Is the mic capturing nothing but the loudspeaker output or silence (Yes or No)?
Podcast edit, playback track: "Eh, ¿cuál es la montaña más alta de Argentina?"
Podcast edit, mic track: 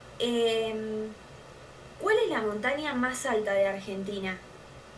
Yes